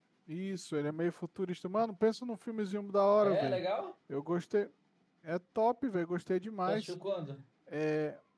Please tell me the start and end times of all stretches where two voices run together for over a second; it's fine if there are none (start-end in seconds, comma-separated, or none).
none